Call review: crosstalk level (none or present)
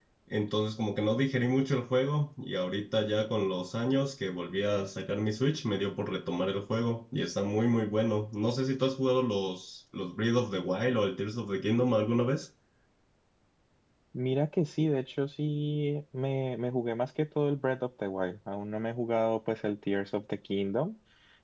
none